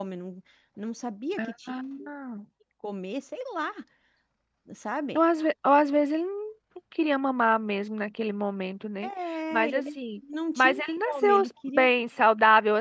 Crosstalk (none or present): present